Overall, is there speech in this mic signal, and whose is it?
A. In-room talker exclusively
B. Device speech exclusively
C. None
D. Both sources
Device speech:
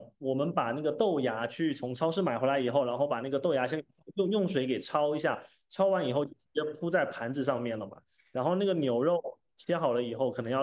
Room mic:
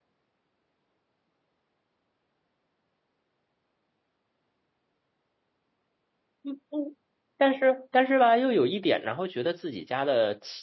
A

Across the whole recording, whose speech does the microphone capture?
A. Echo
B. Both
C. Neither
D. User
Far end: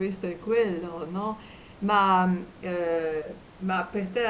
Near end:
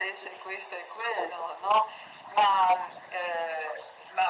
A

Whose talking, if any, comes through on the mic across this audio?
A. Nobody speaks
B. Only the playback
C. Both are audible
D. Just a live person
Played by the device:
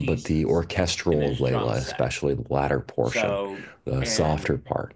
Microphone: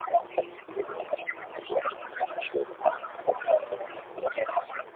B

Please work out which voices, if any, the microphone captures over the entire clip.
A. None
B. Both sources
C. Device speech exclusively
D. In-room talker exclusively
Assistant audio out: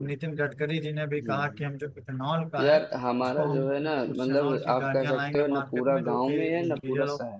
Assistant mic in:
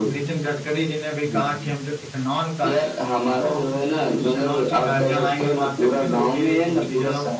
C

